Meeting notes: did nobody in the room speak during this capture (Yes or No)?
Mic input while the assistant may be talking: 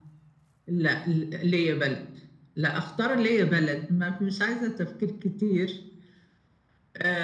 Yes